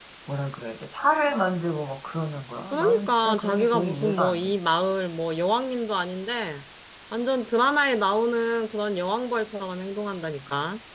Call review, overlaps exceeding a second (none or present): present